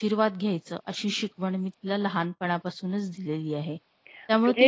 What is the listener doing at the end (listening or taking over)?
listening